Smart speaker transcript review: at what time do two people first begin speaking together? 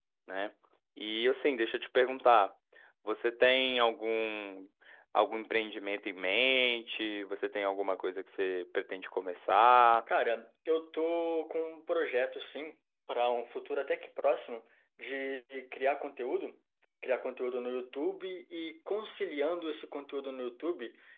none

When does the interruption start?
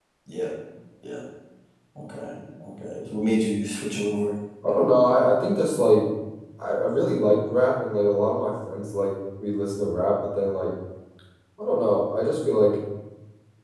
none

